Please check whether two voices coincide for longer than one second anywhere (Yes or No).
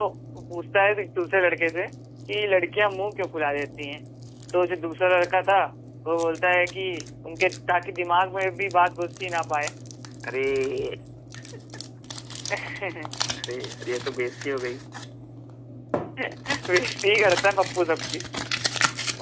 No